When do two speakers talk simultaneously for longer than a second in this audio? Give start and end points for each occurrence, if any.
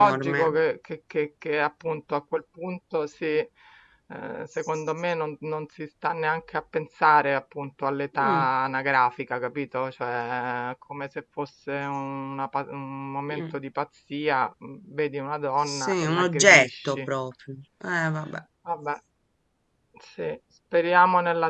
15.7-17.1

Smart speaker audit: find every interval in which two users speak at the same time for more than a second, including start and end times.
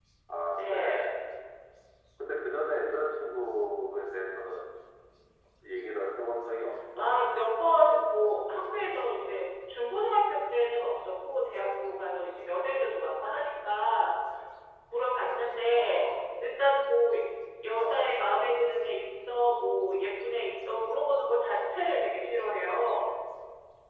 none

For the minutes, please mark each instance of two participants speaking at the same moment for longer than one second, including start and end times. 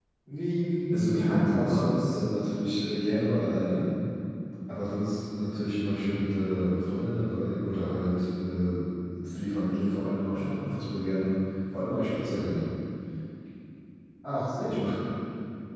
0.9-2.2

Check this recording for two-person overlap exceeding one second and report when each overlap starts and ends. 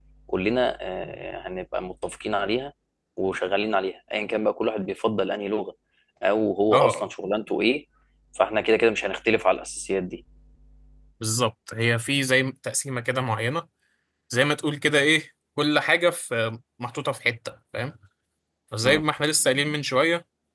none

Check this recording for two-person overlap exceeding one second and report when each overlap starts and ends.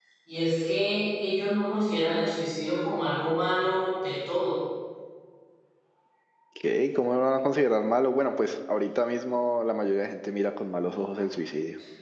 none

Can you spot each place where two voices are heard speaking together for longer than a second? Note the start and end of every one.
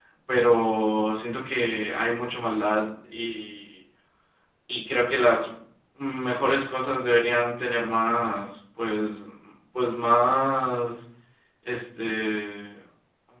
none

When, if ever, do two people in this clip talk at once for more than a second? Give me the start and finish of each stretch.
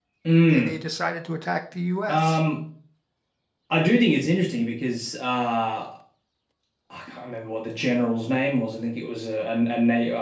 none

